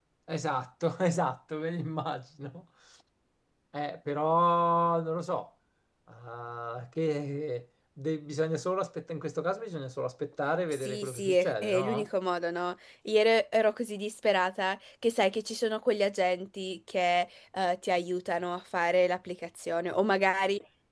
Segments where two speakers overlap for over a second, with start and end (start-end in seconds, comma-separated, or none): 10.7-12.1